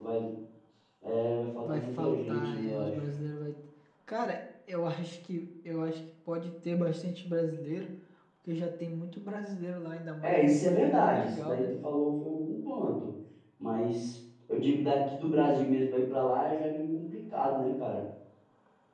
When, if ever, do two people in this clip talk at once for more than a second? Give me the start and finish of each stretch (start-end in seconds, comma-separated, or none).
1.6-2.9, 10.2-11.7